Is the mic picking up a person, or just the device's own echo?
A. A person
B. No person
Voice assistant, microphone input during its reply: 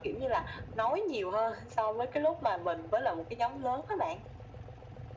B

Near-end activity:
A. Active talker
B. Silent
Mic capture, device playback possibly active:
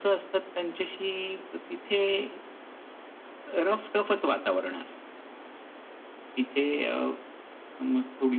B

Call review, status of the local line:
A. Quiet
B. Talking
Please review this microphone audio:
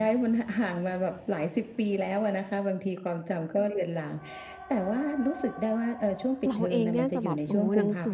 B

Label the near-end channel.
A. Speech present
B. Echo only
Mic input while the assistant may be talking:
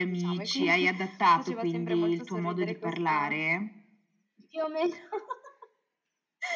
B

